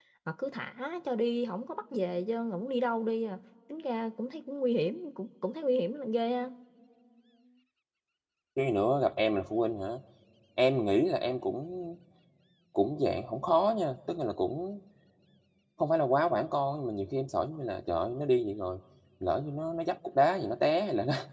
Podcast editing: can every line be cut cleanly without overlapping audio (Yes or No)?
Yes